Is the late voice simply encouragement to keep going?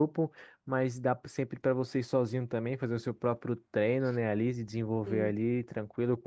Yes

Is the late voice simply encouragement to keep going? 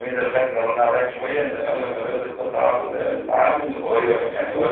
Yes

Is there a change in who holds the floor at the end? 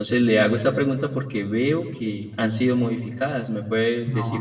Yes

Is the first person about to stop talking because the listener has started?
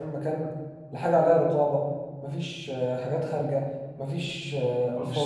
No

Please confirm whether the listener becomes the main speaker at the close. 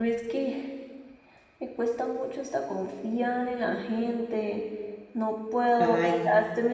No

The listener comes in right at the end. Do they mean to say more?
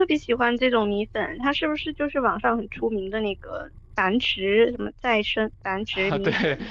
Yes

